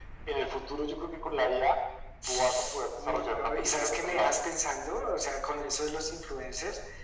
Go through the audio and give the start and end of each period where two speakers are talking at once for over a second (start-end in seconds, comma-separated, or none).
3.0-4.3